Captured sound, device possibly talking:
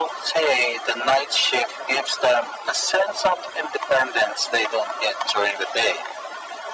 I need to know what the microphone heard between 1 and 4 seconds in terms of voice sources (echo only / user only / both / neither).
echo only